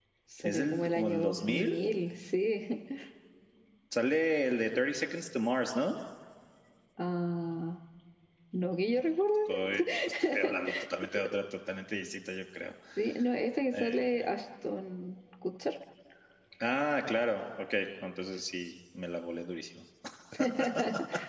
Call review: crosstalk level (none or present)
present